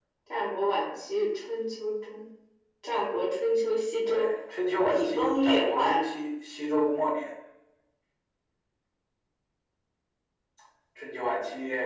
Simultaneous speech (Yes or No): Yes